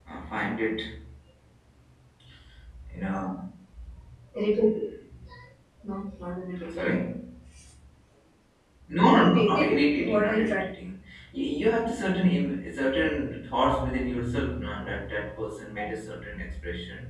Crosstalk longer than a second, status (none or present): present